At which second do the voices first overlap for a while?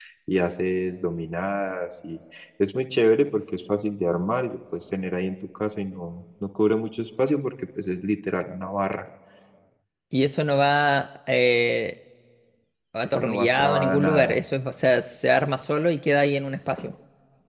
13 s

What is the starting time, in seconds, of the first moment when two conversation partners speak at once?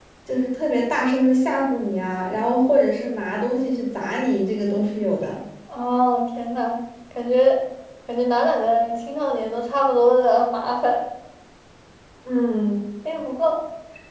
none

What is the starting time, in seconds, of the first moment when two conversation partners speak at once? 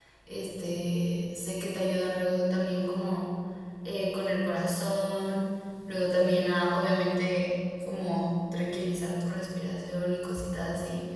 none

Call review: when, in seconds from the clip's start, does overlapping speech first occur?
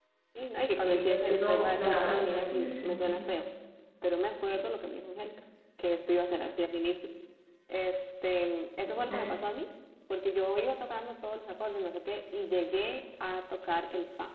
1 s

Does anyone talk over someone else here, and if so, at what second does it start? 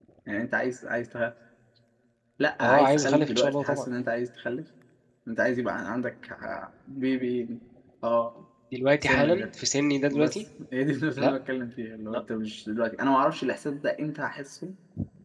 3 s

